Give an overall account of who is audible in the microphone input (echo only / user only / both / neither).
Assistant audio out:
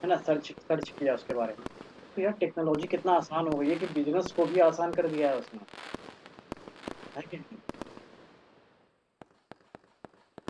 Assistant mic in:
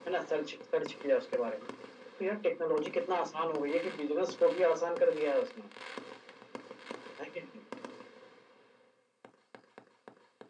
echo only